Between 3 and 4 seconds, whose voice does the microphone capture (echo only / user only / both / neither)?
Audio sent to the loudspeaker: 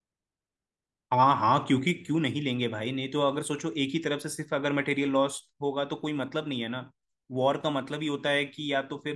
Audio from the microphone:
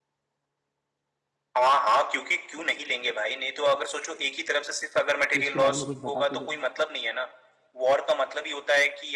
echo only